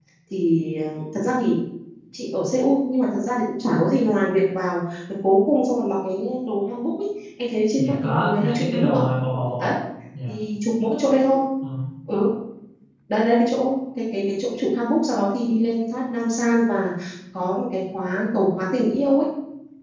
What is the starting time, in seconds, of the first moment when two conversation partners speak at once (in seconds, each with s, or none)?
7.8 s